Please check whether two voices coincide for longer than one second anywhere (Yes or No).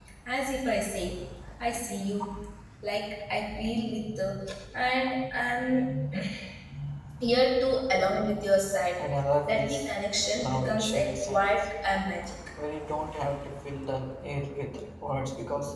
Yes